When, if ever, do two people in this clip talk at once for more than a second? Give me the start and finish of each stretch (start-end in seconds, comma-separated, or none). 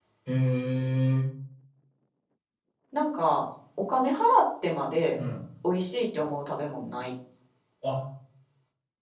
none